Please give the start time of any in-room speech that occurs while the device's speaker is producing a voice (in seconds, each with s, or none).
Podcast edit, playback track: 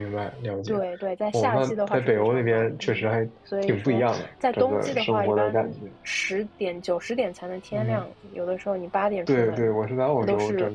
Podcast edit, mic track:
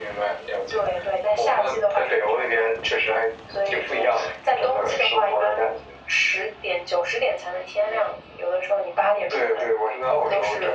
none